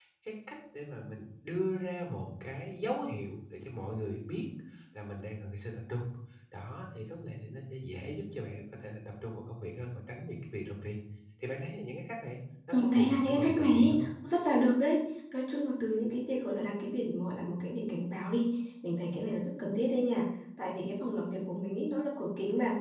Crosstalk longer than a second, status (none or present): present